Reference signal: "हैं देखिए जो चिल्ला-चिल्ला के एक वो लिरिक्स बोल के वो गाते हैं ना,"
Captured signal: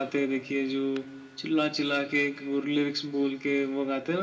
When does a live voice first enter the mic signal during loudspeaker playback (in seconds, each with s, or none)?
none